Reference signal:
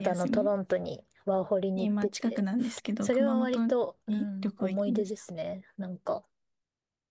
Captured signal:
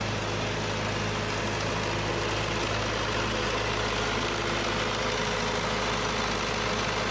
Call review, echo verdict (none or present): none